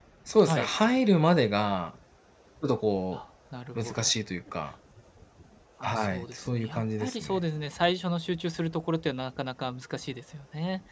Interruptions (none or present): present